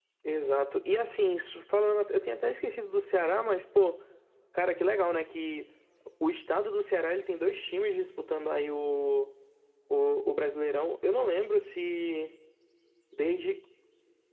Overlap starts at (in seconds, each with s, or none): none